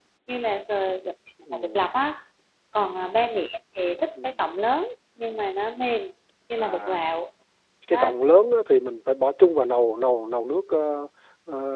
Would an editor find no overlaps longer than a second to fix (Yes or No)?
Yes